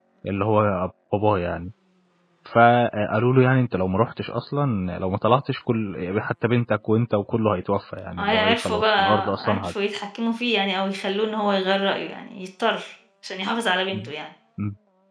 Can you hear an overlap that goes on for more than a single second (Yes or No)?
Yes